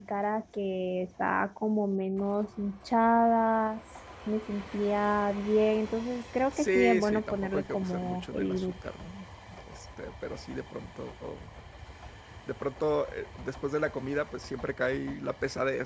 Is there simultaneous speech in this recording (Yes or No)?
Yes